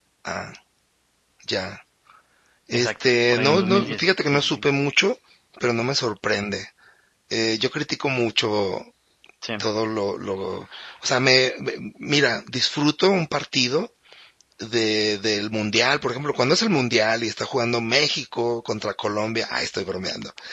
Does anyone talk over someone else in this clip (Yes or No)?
Yes